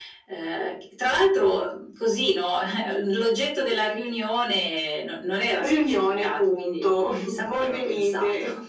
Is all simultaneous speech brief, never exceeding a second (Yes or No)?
No